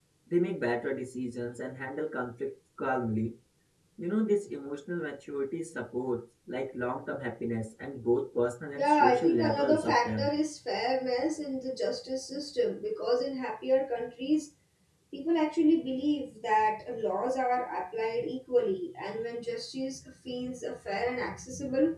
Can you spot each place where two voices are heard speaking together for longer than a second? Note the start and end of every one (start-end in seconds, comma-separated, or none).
8.8-10.3